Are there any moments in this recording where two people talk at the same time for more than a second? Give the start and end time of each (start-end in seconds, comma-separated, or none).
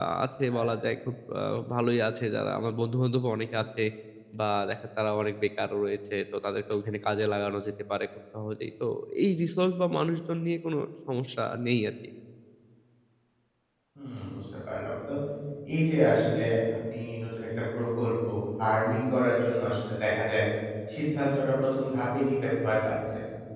none